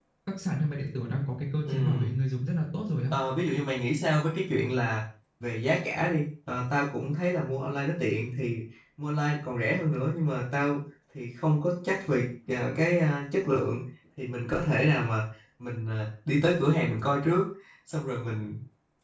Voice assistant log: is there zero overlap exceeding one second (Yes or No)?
Yes